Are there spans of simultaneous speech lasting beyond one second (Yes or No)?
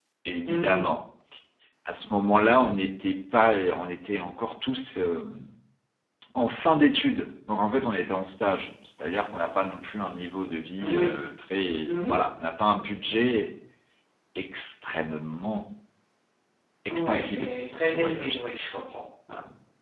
Yes